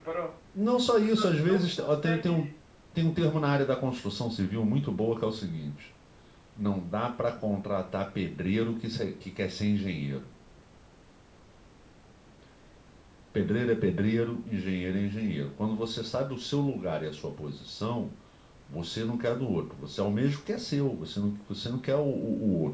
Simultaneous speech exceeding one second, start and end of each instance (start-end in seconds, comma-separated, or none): 1.0-2.3